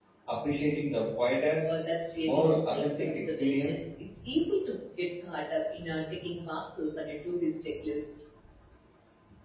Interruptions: present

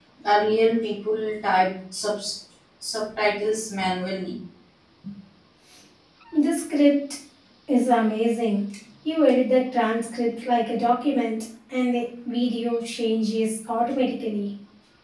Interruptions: none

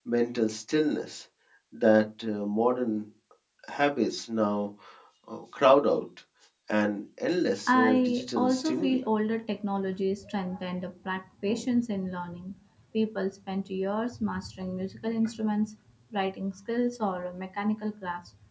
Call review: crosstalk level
present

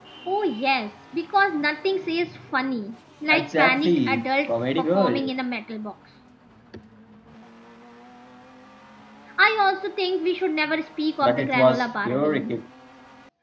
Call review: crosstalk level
present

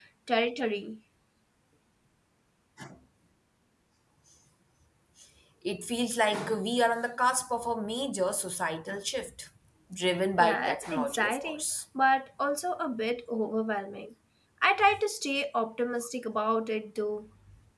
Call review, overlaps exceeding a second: present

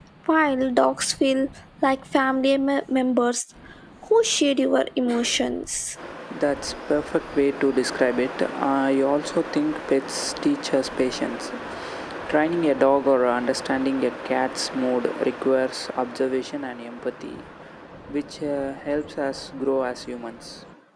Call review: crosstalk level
none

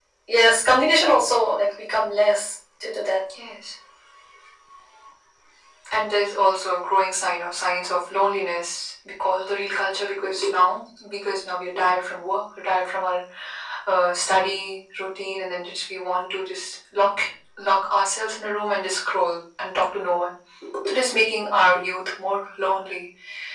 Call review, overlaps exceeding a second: none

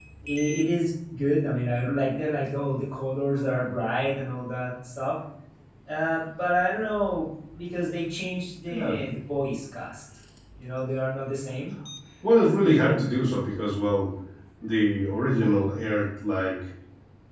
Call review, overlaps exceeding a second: none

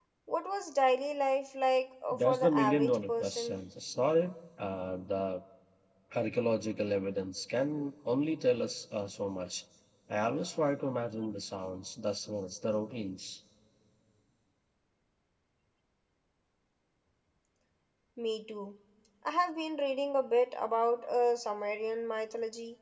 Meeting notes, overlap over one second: present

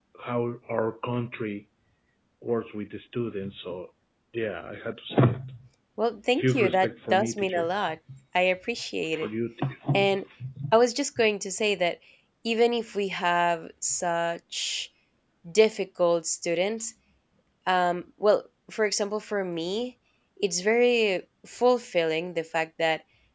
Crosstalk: present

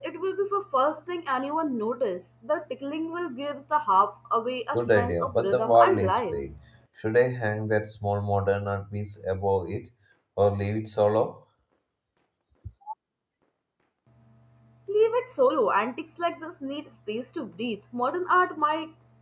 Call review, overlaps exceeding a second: present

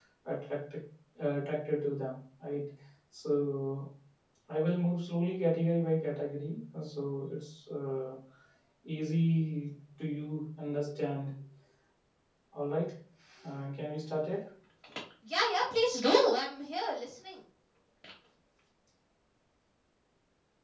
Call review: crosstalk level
none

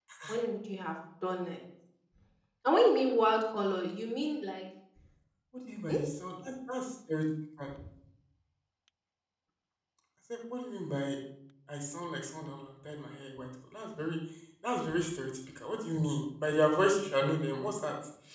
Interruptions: none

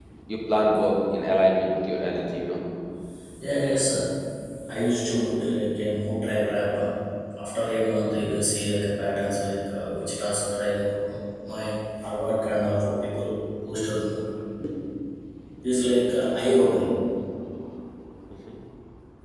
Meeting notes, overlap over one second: none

